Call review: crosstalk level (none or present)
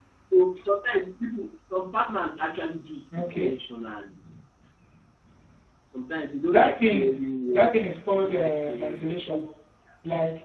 present